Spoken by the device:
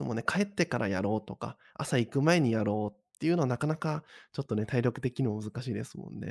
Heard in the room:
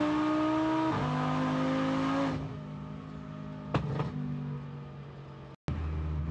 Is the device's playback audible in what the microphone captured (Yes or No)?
No